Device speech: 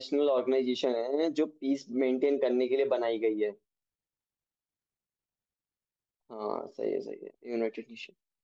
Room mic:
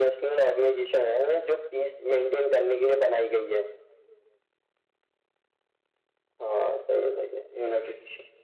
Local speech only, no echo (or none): none